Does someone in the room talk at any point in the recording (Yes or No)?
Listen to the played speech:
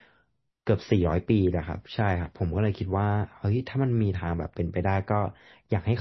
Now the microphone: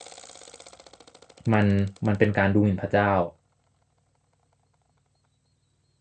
Yes